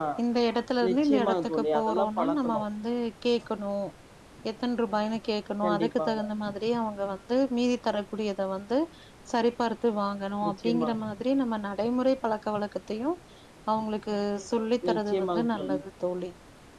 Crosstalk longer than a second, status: present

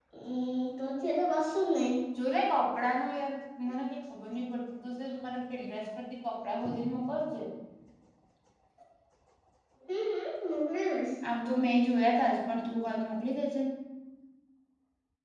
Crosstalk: none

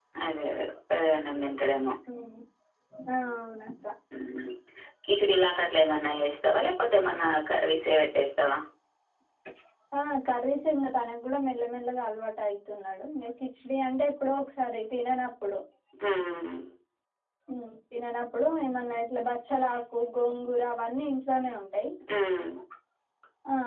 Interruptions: none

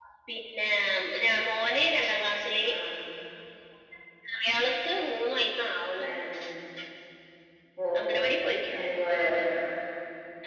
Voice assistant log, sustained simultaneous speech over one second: none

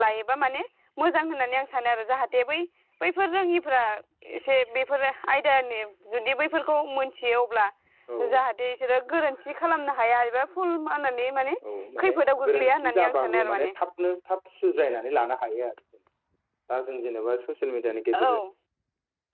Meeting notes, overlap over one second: present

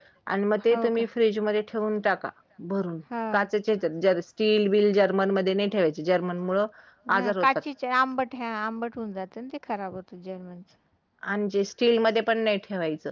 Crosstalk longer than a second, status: none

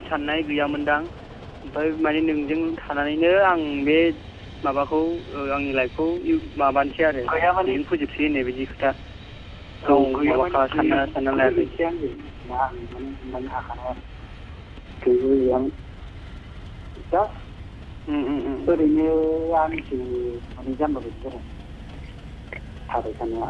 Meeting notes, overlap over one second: present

